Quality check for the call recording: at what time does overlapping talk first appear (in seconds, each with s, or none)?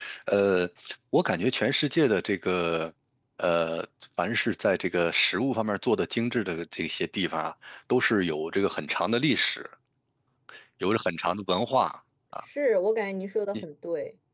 none